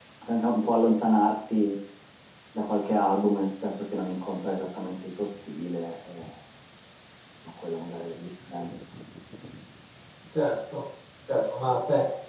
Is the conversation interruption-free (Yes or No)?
Yes